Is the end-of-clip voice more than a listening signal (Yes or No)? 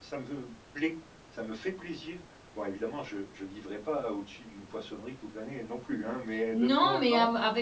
Yes